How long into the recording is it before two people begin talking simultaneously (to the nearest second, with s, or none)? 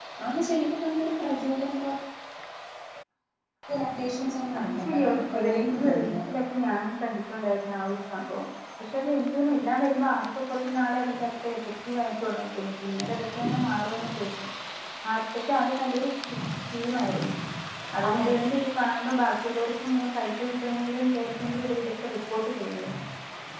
5 s